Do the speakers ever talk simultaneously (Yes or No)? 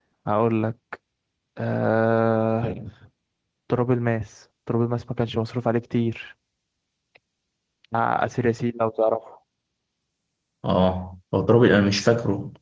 No